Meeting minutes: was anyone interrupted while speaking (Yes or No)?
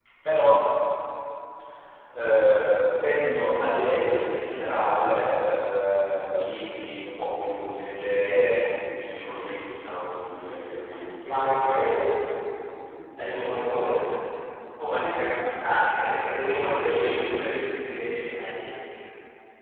Yes